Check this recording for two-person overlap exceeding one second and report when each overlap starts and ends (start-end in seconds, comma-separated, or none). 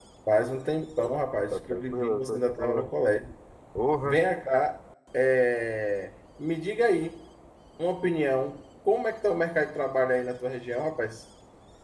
1.5-2.9